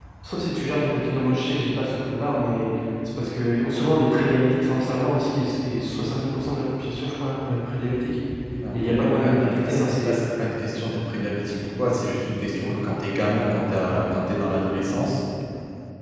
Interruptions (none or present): present